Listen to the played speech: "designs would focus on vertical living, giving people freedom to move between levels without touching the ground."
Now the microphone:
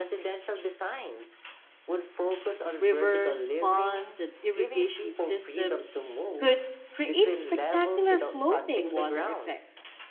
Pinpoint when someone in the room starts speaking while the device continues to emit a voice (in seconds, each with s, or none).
2.8 s